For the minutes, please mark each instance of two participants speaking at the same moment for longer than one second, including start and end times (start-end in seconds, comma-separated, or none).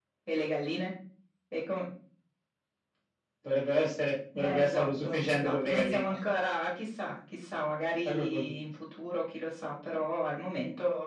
4.4-6.2